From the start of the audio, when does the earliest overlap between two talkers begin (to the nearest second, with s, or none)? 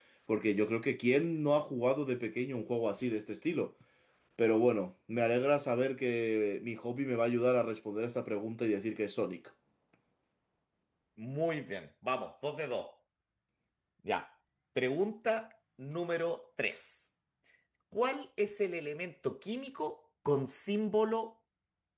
none